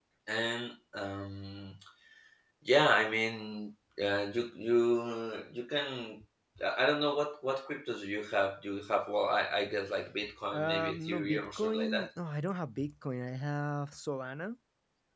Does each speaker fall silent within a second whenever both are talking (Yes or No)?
No